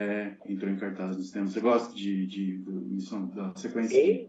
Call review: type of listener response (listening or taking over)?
taking over